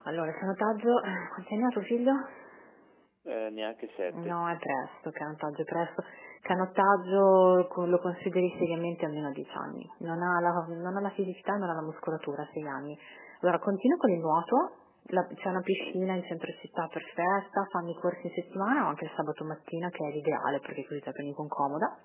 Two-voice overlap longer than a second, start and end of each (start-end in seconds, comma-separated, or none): none